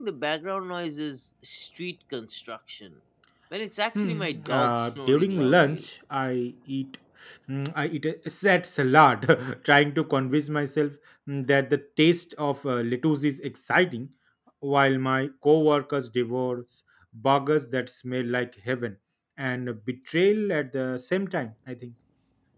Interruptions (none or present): present